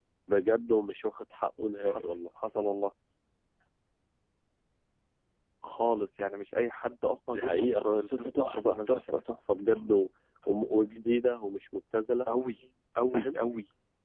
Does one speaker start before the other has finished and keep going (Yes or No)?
Yes